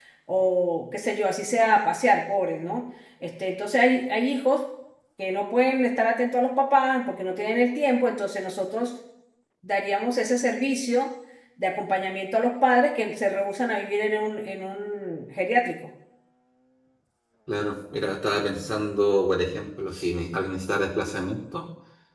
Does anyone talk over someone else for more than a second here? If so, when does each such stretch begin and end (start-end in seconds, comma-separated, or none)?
none